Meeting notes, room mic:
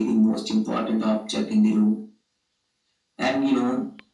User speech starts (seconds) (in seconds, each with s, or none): none